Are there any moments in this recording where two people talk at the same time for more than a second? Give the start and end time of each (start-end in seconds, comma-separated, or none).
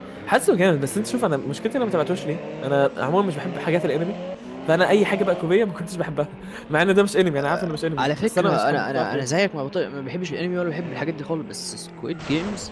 8.0-9.2